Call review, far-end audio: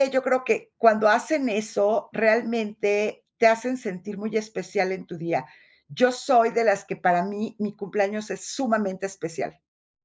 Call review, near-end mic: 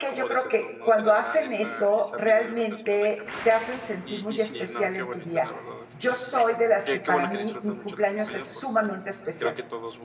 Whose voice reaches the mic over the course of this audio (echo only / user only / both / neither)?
both